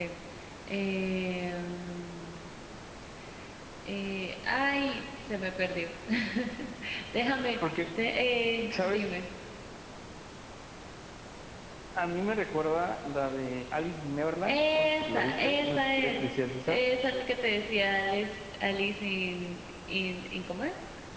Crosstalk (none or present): present